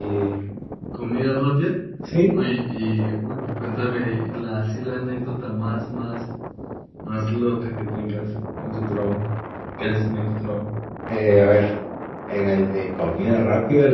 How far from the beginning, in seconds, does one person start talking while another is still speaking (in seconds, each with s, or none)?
none